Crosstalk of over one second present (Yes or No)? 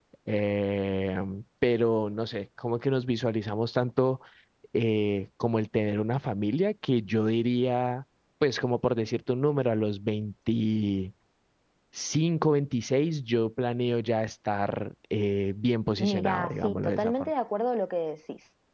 Yes